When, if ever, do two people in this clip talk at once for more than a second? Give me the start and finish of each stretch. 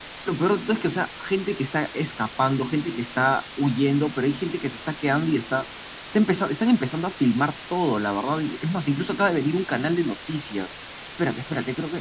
none

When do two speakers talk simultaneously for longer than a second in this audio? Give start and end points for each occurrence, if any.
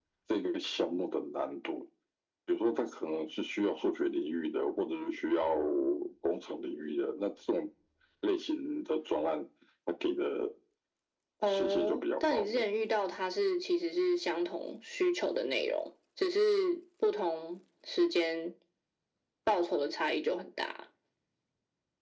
11.5-12.7

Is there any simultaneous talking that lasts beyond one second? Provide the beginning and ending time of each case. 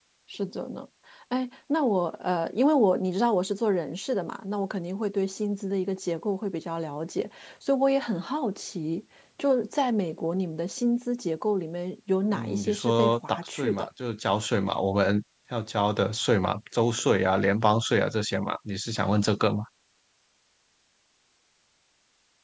12.3-13.9

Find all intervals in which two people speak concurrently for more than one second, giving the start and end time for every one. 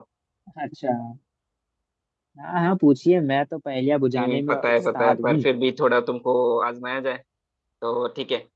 4.2-5.4

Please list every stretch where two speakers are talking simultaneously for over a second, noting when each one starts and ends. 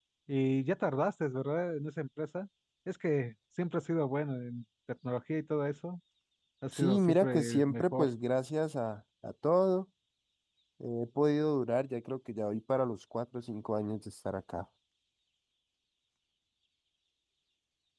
6.7-8.1

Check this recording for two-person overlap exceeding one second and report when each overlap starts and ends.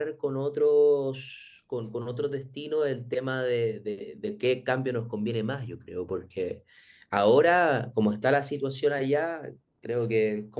none

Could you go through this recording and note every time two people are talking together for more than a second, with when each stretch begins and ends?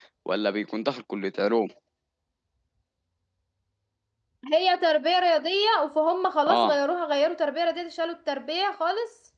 none

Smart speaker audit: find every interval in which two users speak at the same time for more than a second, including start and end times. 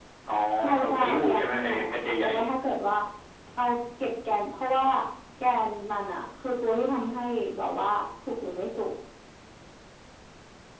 0.8-2.3

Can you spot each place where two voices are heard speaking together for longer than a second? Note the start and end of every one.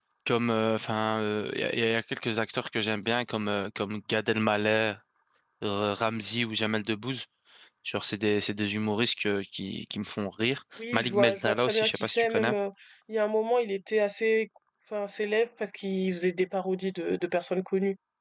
10.9-12.5

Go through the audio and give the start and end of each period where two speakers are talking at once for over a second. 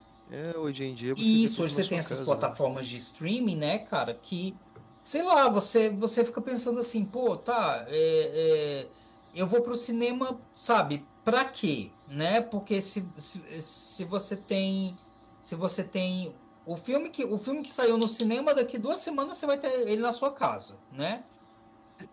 1.2-2.6

